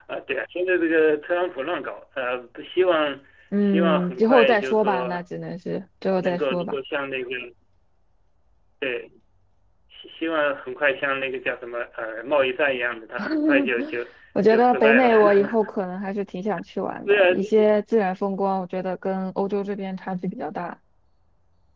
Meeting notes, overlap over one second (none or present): present